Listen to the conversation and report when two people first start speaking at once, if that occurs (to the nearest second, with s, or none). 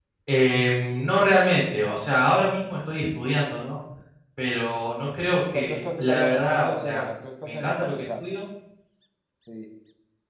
5 s